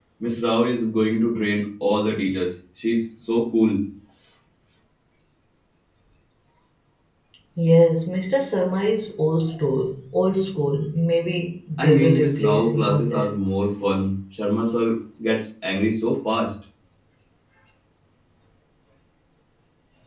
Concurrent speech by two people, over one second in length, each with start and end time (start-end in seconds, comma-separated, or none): 11.8-13.3